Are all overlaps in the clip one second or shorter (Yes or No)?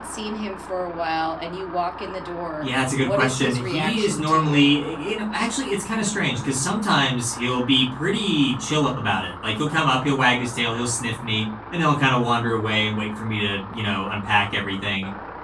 No